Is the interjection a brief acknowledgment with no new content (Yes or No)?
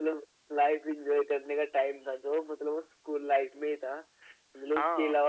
Yes